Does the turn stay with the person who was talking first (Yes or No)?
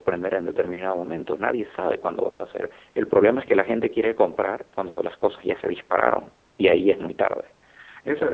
No